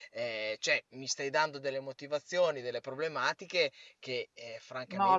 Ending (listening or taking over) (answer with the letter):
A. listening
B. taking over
B